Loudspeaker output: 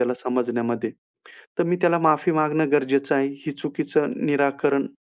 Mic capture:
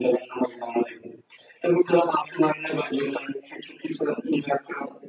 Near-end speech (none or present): none